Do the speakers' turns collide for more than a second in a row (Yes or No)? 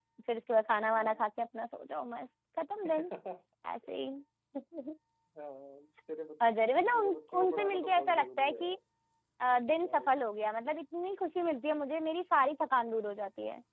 Yes